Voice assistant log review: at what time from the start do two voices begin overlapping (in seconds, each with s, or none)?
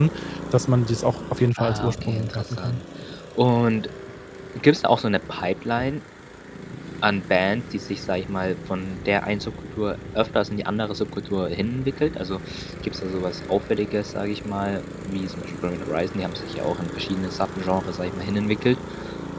1.6 s